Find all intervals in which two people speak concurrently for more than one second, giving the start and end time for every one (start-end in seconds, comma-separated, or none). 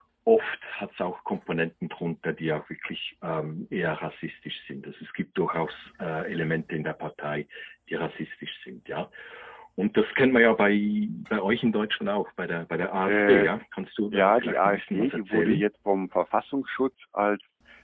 14.1-15.6